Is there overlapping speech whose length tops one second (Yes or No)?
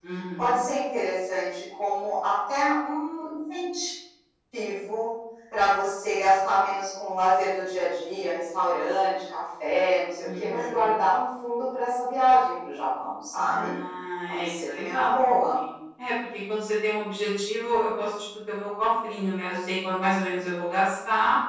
Yes